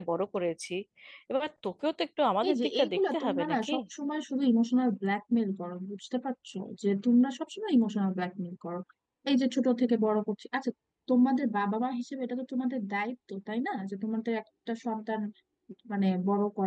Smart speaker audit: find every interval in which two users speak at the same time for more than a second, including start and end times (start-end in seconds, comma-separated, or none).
2.5-3.7